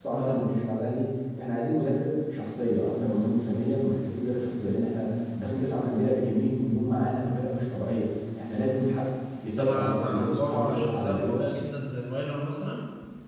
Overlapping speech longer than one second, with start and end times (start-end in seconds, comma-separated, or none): 9.6-11.4